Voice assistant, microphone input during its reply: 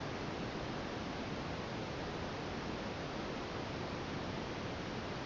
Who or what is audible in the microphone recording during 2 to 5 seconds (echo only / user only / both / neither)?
neither